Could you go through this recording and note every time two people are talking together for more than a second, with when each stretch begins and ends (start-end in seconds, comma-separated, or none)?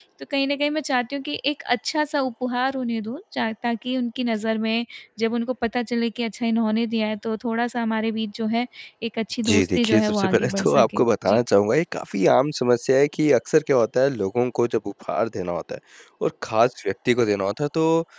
9.4-11.4